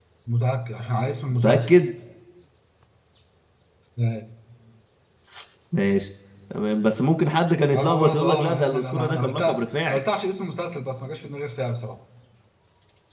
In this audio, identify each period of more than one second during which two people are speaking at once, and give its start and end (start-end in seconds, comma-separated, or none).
7.7-10.0